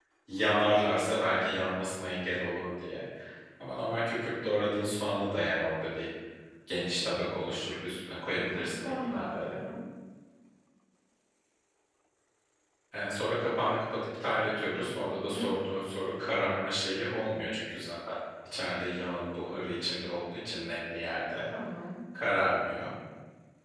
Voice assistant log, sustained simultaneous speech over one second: present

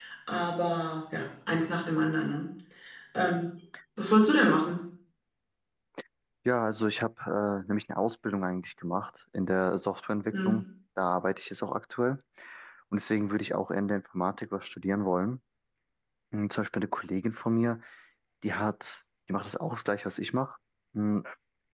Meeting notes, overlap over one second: none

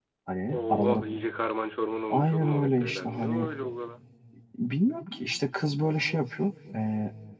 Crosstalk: present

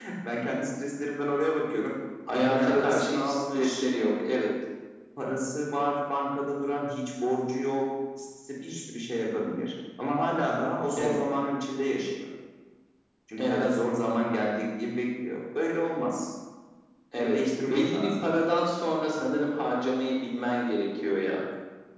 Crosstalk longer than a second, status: present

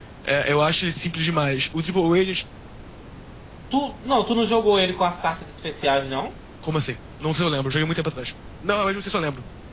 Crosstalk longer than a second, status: none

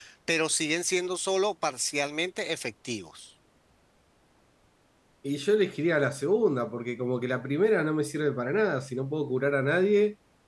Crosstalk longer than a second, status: none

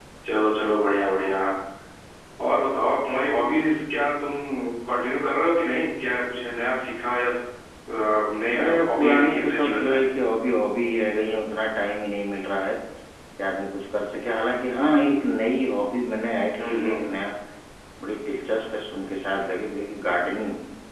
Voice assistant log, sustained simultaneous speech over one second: present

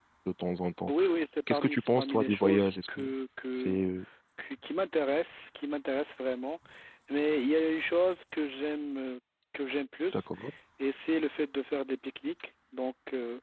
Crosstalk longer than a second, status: present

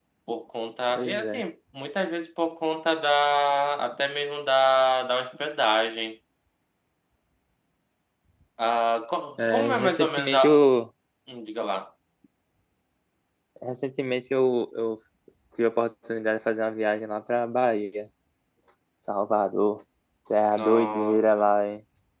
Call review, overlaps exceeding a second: present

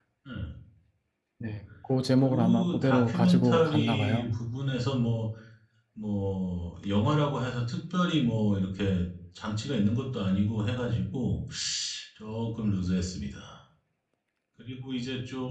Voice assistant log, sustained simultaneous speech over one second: present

